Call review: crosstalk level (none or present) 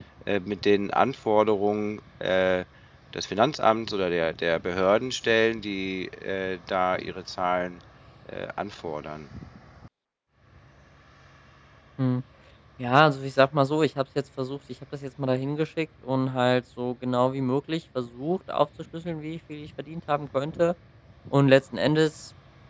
none